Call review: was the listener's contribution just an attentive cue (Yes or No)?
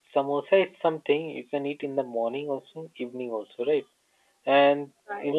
Yes